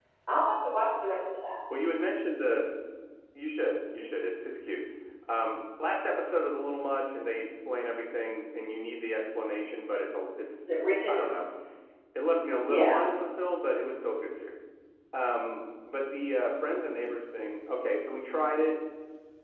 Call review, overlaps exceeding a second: none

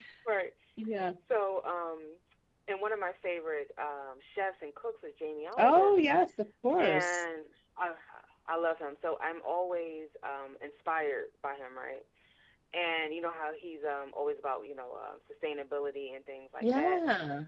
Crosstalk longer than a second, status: none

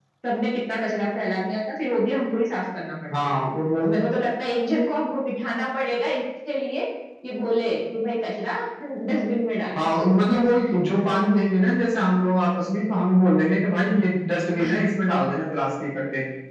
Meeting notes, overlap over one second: none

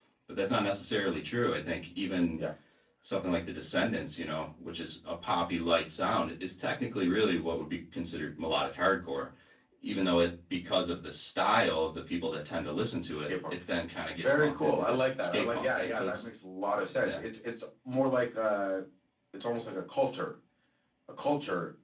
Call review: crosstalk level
present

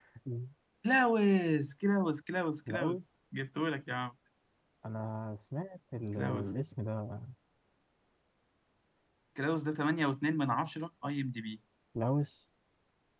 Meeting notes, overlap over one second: none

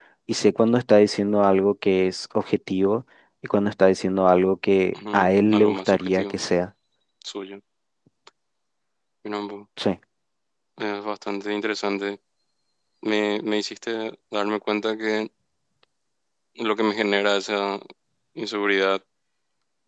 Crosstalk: present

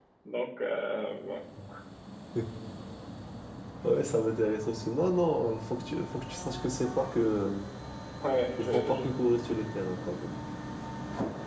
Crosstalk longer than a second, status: none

